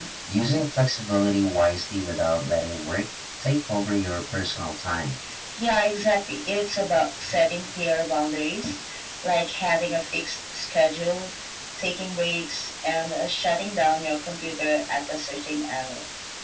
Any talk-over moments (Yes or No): No